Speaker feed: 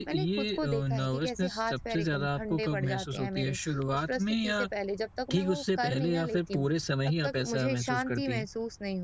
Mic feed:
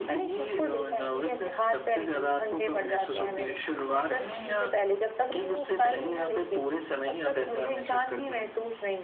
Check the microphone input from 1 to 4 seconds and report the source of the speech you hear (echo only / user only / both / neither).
echo only